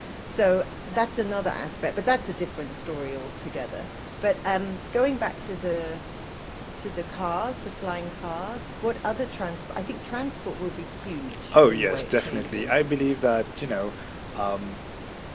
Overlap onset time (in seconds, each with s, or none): 11.5 s